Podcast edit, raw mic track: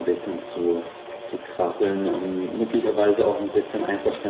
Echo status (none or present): present